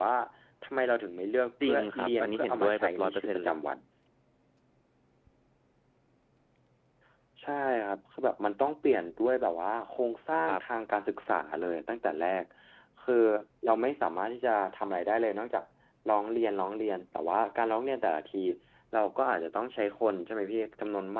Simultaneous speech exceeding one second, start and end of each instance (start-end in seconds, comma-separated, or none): 1.6-3.5